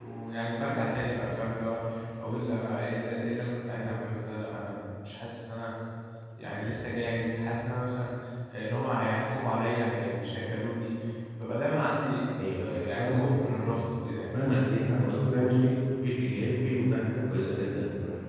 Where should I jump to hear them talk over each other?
12 s

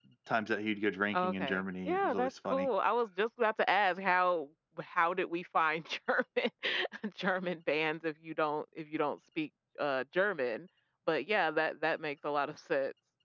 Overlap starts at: 1 s

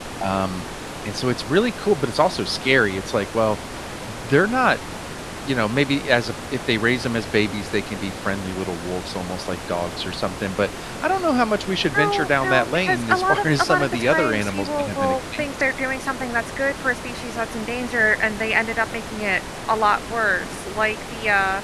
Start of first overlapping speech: 12 s

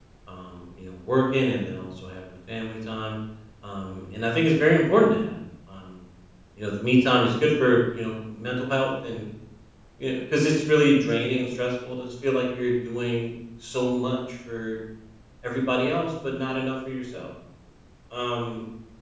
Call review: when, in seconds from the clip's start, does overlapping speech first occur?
none

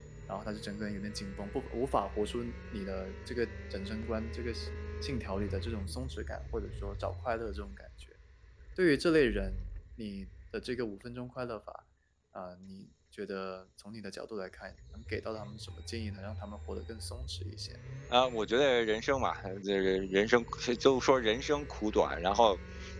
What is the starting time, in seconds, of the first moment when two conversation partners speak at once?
none

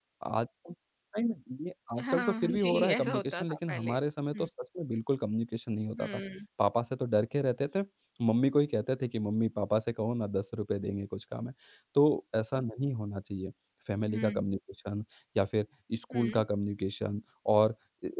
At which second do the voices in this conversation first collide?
2 s

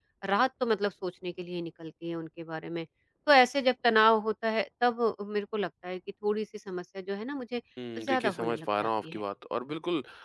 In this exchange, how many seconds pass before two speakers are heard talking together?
8 s

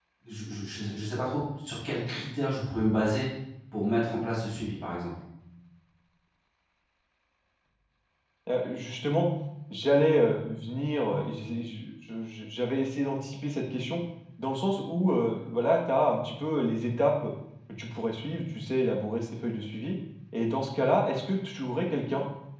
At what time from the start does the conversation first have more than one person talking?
none

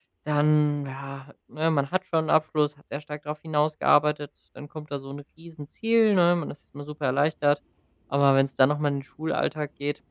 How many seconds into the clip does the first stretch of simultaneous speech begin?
none

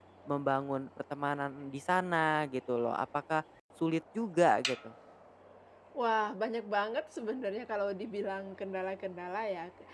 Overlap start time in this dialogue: none

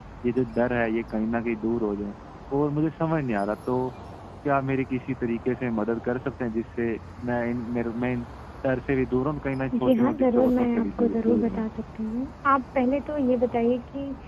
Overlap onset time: 10 s

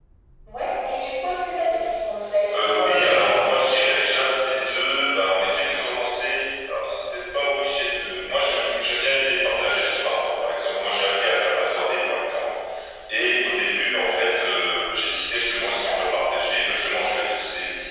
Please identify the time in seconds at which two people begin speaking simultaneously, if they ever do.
3 s

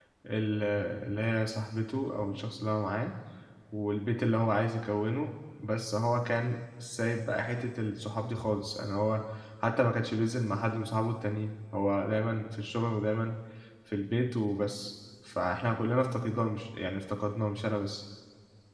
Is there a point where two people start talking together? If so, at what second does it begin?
none

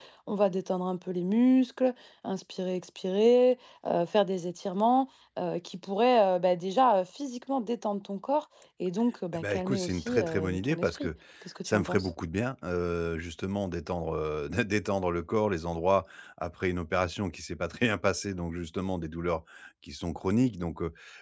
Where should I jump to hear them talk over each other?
9 s

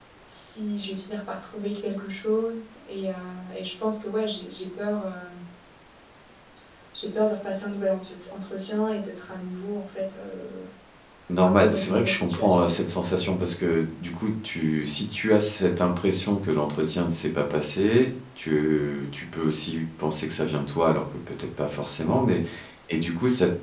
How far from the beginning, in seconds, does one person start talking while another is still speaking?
11 s

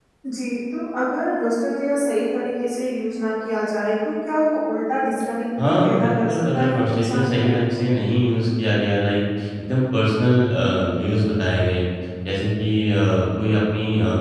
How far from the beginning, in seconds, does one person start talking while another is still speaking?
6 s

